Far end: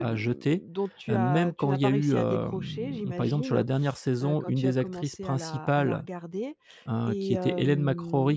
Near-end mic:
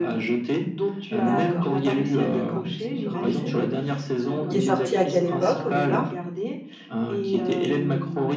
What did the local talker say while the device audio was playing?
D'accord d'accord, donc c'est une grande série, qui est sortie à quelle époque au départ?

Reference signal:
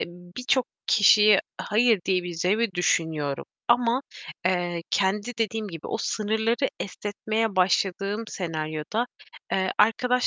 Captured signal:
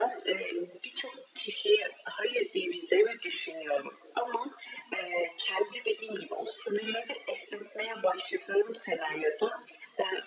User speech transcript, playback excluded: none

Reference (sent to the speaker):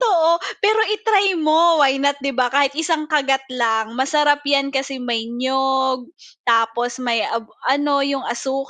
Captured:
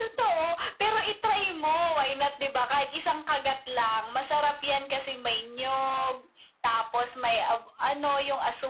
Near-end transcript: none

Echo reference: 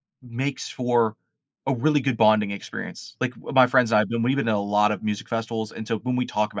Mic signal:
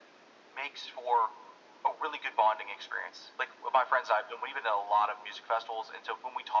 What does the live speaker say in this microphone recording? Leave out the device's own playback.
none

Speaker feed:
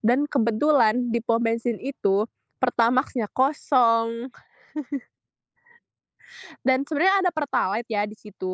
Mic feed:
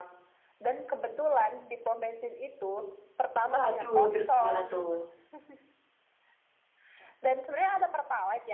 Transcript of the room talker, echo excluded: Waduh, terus gimana tuh?

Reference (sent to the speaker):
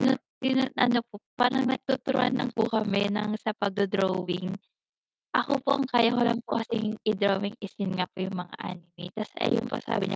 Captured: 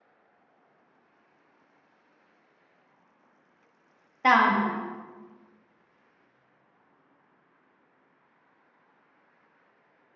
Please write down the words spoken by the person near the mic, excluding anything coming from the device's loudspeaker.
Tama.

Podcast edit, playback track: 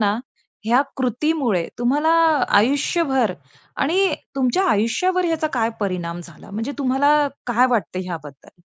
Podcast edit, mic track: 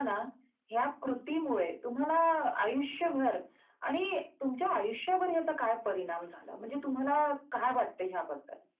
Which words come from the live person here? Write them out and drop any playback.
none

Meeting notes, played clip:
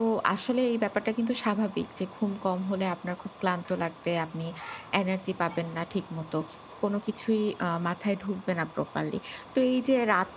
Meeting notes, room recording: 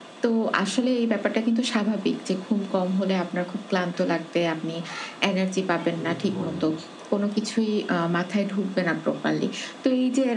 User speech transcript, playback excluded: যদি একটু বলেন।

